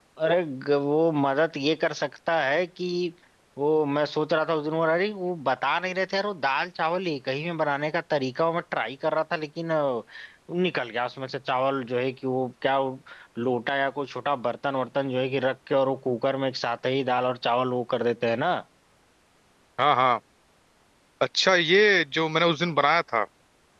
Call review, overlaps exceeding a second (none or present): none